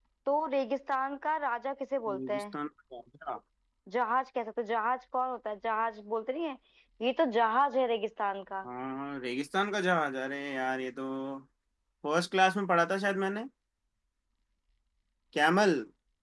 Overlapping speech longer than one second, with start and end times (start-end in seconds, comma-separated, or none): none